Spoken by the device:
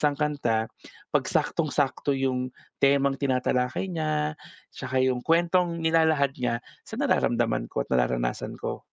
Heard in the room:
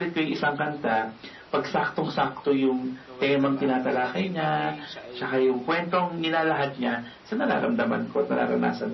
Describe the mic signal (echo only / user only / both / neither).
both